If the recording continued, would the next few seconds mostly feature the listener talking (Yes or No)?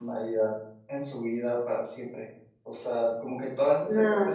No